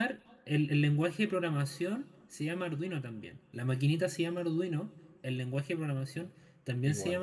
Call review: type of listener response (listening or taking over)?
listening